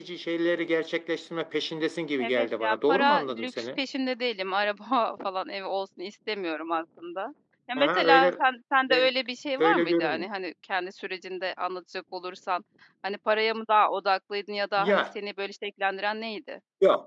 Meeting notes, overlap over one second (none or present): present